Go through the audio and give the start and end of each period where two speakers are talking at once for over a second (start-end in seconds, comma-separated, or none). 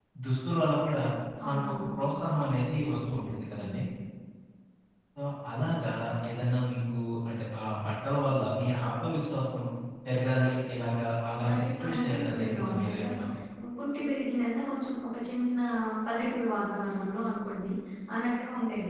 11.5-13.0